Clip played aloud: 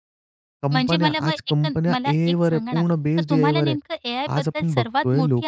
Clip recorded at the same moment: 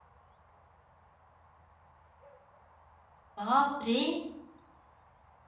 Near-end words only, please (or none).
बापरे!